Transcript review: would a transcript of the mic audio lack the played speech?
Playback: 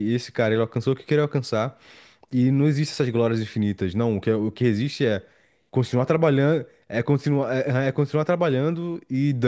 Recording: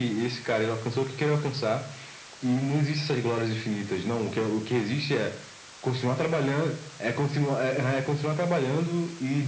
No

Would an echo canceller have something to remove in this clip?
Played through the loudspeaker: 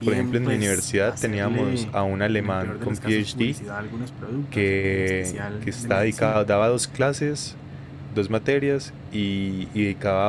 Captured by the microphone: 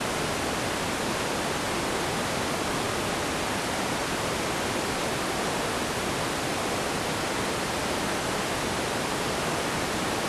No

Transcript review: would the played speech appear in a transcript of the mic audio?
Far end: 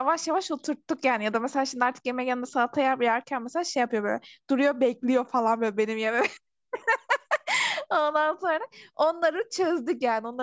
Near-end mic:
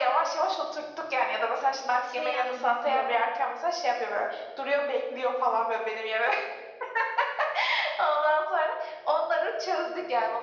Yes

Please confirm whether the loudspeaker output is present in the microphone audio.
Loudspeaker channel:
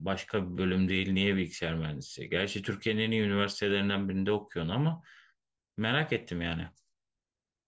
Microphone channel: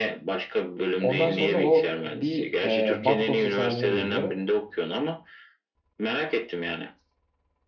Yes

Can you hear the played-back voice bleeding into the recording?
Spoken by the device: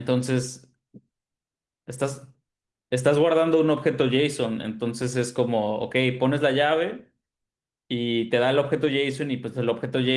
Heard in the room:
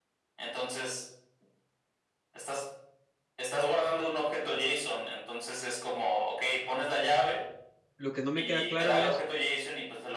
Yes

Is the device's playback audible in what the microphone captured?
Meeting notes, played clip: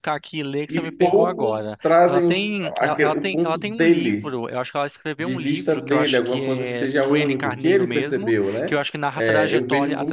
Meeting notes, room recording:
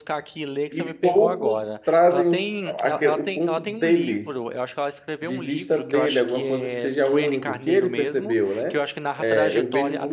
Yes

